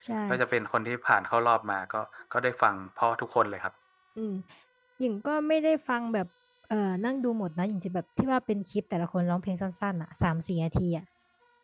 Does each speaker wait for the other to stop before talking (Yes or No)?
Yes